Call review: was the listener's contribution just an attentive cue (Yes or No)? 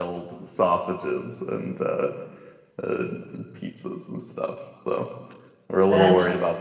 Yes